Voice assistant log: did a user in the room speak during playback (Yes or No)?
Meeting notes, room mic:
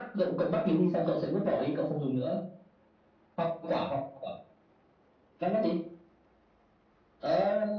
No